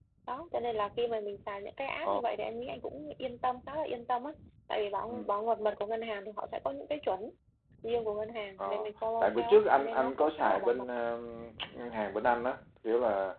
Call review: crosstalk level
present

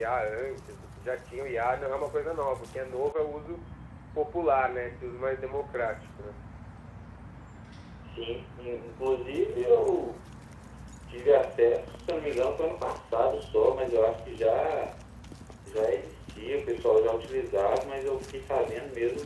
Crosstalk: none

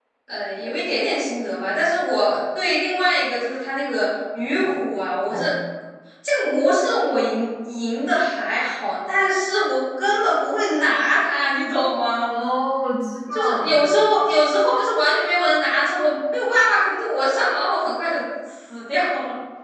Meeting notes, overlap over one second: none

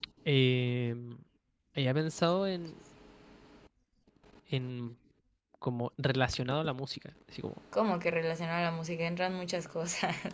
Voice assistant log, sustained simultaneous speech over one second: none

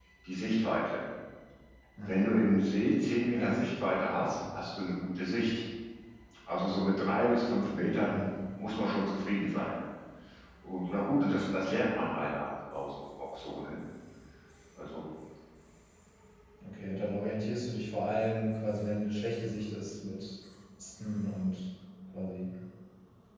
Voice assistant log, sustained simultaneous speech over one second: none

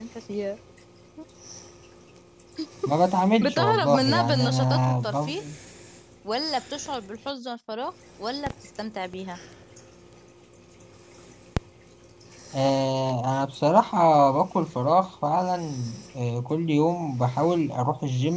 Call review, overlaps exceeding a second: present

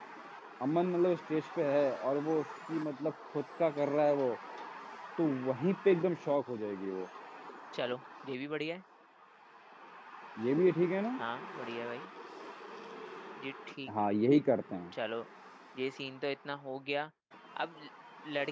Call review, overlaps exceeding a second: none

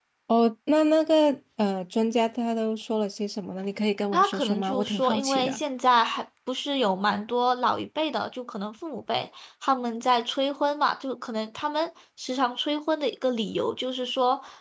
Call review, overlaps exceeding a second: present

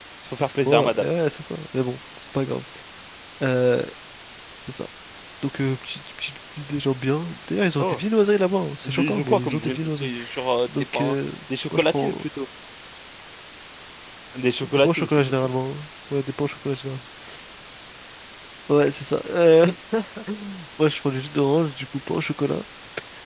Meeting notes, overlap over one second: present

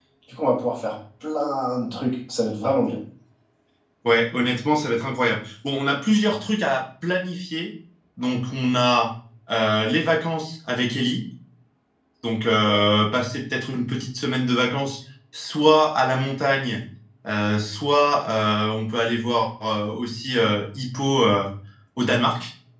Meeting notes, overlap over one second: none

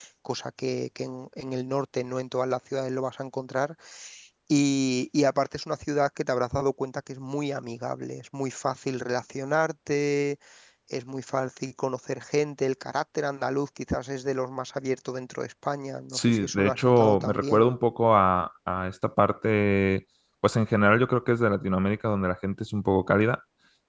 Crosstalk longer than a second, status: present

